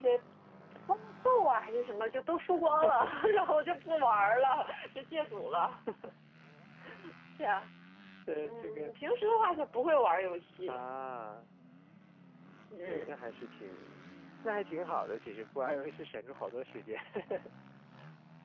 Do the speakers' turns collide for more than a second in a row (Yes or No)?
No